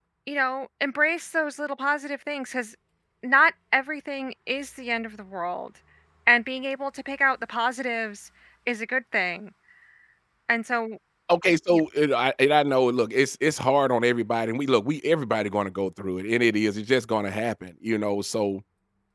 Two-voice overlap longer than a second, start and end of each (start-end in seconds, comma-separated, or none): none